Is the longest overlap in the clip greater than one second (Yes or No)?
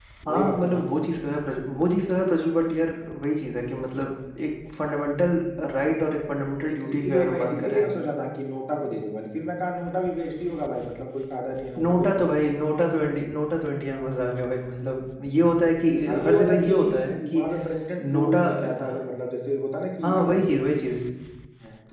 Yes